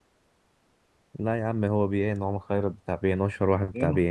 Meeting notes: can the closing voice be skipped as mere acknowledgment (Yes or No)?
No